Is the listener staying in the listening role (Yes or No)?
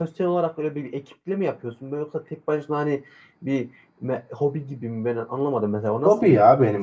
No